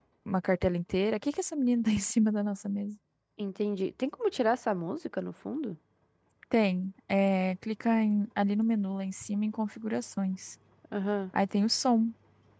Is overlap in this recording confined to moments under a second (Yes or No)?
Yes